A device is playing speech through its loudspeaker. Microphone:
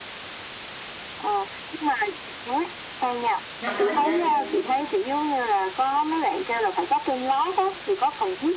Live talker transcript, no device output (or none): dạ không có chị ơi